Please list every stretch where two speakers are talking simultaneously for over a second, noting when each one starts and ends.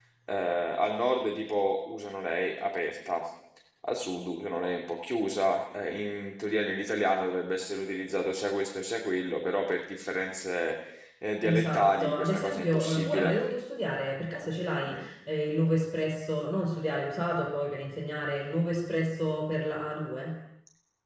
11.4-13.4

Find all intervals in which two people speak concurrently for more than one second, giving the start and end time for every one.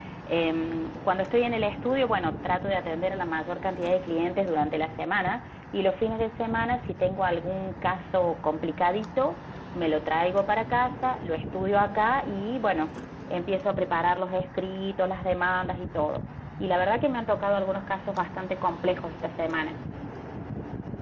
none

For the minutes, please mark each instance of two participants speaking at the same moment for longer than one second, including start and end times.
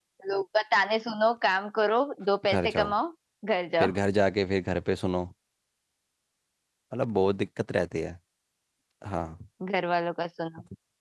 none

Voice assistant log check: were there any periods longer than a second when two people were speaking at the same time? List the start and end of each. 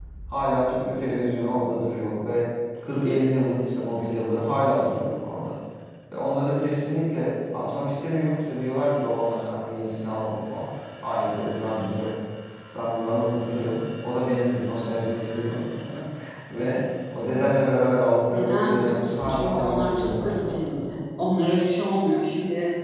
18.3-20.7

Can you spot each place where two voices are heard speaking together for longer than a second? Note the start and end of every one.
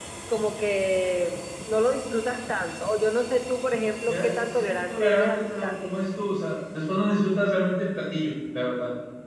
4.1-5.7

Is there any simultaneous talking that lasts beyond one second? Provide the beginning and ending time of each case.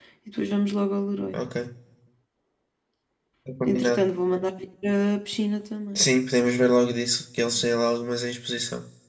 none

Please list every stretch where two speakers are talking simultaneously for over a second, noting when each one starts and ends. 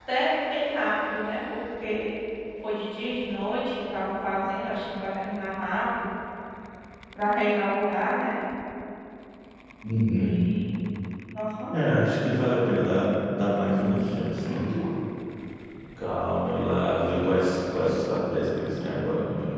none

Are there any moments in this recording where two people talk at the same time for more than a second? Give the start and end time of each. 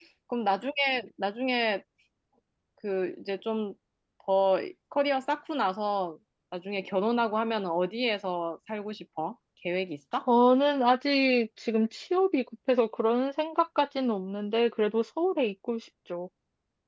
none

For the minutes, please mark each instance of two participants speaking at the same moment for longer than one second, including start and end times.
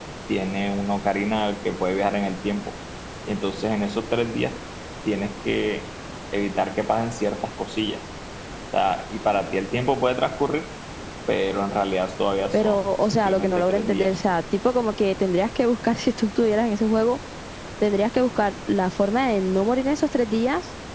12.5-14.1

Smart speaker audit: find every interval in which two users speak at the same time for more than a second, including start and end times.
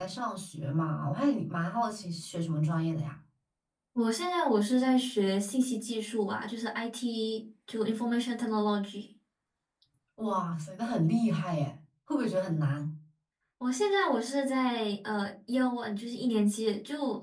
none

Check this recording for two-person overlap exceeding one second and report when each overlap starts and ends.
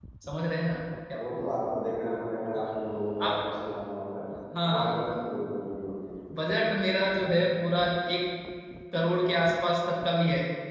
none

